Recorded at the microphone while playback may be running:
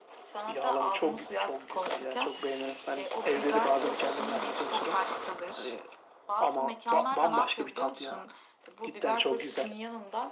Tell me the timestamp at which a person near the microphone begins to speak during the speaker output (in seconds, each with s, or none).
none